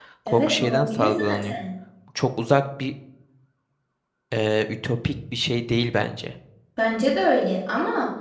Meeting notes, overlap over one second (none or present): present